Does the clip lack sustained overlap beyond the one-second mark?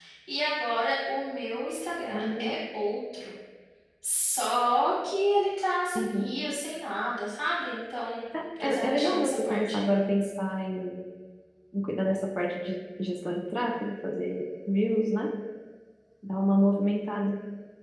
No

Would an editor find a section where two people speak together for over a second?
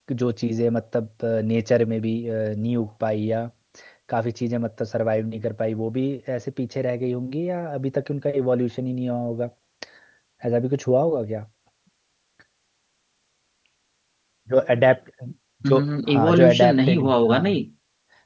Yes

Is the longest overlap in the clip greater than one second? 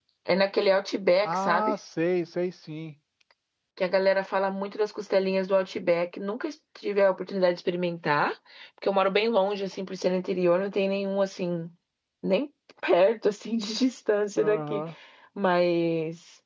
No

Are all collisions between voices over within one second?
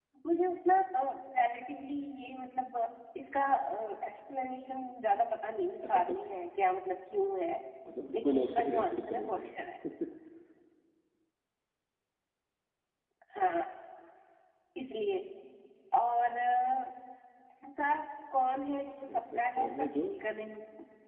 No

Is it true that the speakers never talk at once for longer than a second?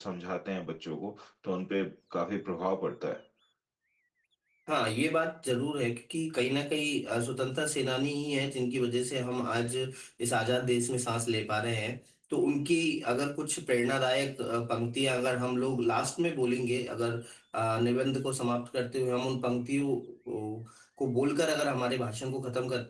Yes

